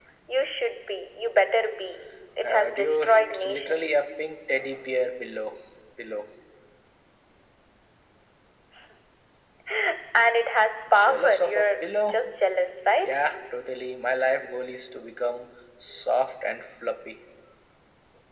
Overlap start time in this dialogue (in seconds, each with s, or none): 2.4 s